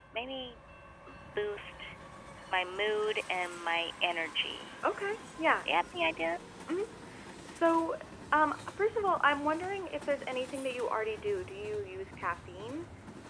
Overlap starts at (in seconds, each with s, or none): none